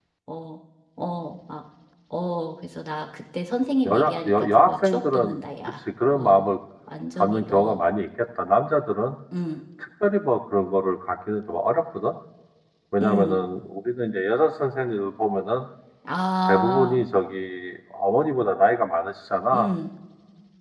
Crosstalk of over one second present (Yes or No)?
Yes